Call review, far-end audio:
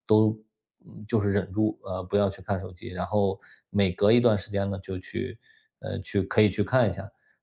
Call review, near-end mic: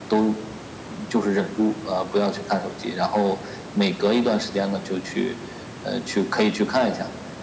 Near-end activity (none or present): none